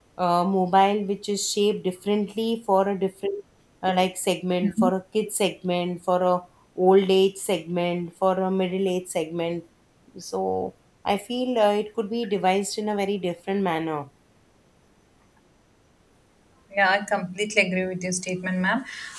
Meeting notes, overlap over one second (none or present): none